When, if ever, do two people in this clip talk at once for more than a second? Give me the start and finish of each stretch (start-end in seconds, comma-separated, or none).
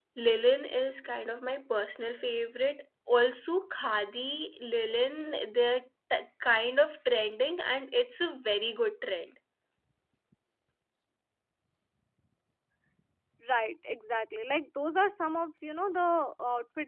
none